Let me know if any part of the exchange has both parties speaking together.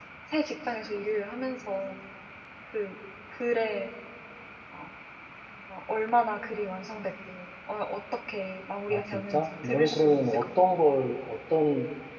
Yes, from 8.9 s

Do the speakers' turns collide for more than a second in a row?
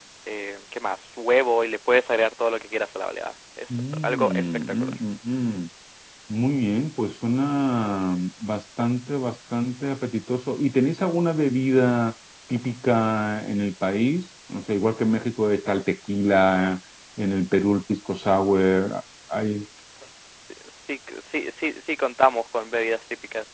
Yes, from 3.7 s

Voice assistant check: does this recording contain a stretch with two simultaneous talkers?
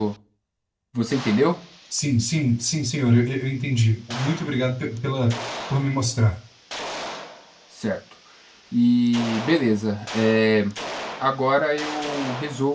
No

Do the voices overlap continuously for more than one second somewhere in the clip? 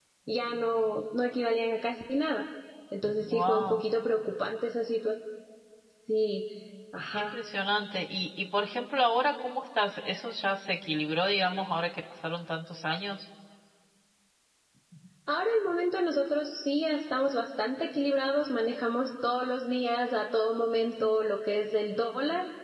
No

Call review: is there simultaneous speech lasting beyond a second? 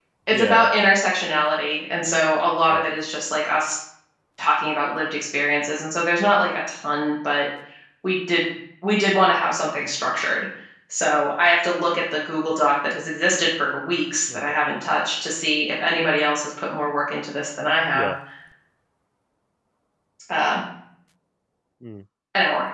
No

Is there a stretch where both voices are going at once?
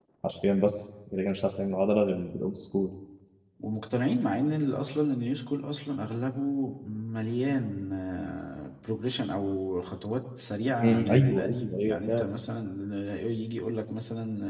Yes, from 10.8 s

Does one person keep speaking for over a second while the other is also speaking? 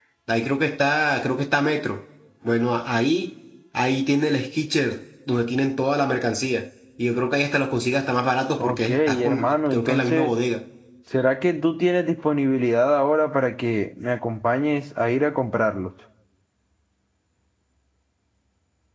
Yes, from 8.6 s

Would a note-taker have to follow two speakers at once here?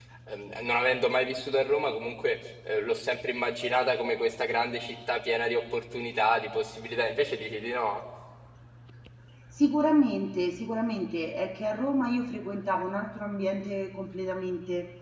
No

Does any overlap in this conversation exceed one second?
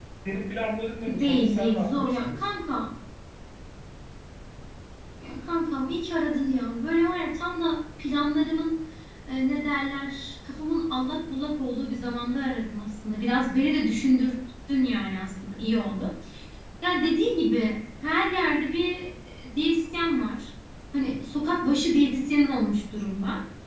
Yes, from 1.1 s

